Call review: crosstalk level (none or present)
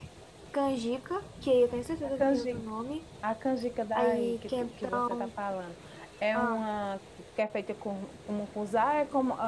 present